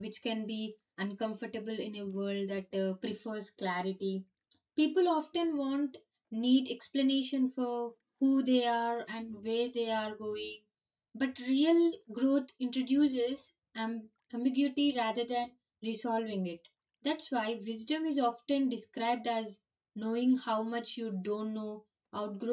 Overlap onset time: none

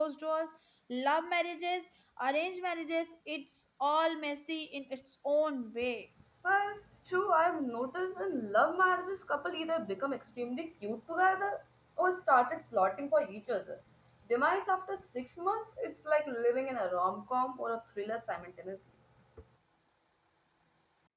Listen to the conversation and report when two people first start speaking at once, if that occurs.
none

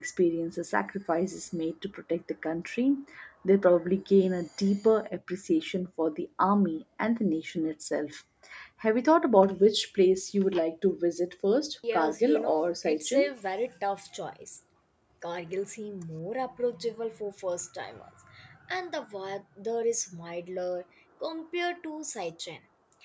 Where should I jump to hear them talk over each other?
11.8 s

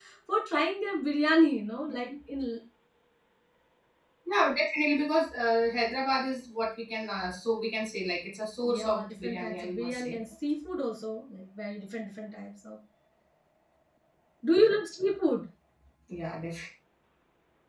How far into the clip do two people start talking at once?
8.6 s

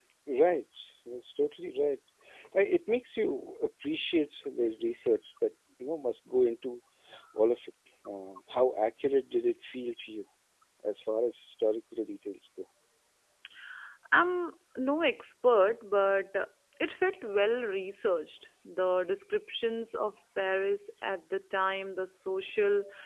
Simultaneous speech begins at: none

